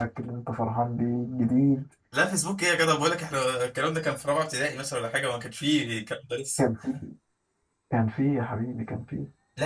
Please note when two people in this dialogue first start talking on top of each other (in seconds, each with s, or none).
none